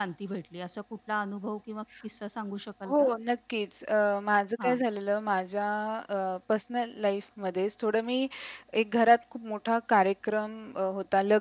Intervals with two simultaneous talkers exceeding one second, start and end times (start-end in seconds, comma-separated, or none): none